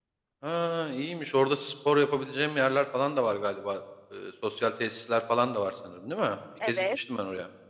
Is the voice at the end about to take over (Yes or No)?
Yes